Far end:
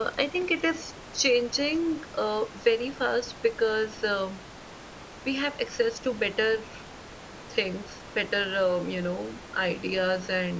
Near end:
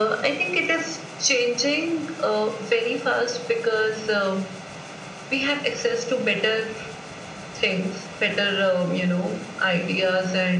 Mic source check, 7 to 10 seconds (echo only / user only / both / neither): echo only